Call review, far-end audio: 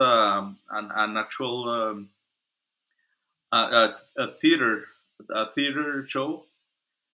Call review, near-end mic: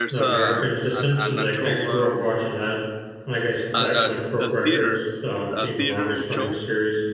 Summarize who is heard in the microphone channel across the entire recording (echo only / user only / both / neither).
both